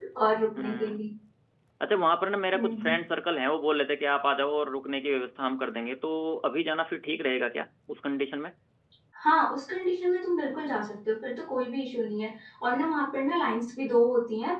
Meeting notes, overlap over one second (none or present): none